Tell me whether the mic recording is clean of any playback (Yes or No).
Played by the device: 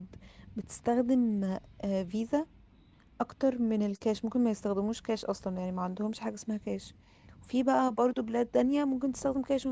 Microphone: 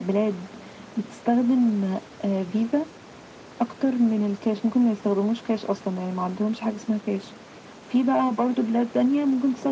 No